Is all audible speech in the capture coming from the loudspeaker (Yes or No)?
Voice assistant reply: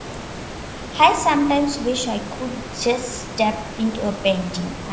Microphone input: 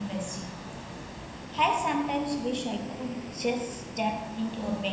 Yes